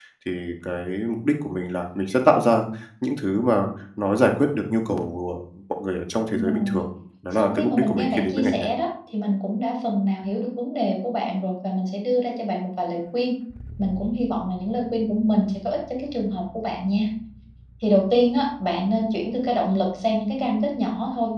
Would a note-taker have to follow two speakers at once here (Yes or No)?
Yes